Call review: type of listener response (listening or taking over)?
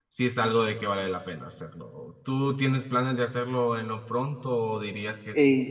taking over